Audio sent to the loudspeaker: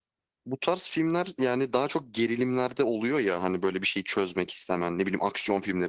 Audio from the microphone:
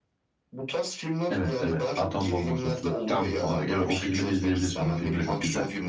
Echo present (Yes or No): Yes